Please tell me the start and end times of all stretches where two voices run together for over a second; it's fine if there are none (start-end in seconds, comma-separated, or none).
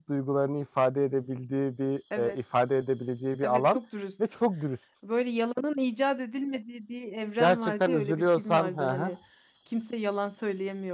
7.4-9.1